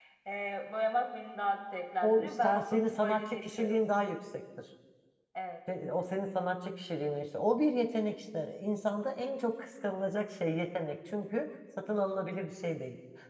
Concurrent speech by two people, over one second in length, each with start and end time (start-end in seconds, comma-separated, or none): 2.0-3.8